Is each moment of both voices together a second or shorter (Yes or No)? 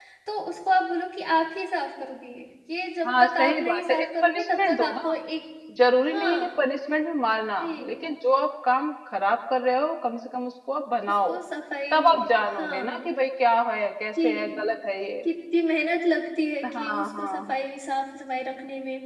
No